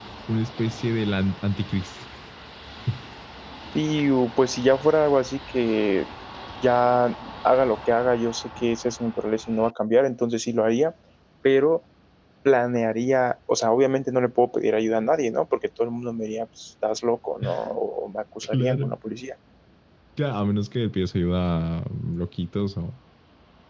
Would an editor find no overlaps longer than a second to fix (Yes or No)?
Yes